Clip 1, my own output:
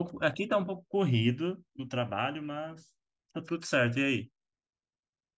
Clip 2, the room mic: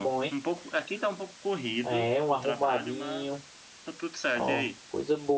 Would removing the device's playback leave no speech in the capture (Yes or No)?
No